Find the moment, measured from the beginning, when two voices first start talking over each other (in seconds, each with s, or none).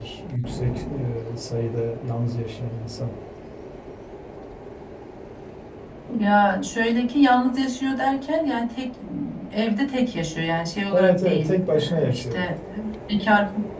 10.9 s